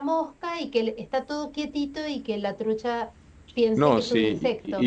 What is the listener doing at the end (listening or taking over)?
taking over